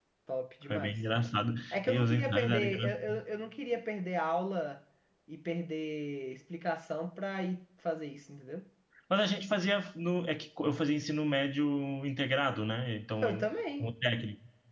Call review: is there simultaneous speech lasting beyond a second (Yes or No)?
Yes